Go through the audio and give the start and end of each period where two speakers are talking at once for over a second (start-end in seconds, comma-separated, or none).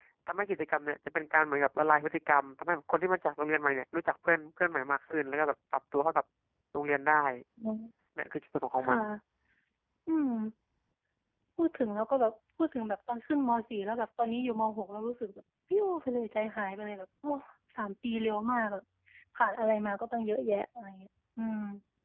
none